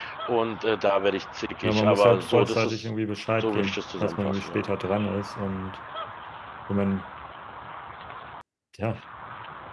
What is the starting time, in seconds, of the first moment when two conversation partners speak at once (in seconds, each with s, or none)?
1.6 s